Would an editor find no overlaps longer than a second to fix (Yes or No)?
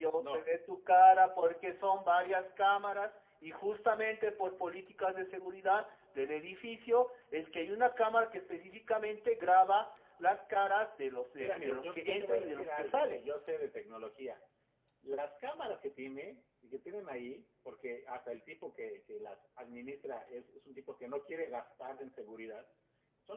No